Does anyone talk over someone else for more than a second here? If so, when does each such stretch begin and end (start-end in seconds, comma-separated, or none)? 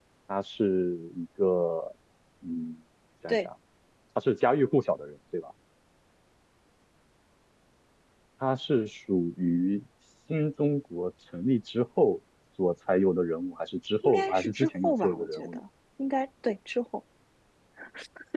14.0-15.6